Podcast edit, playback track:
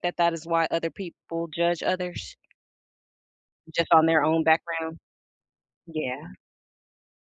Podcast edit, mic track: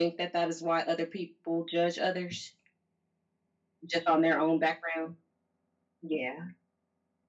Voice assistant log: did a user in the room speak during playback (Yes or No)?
No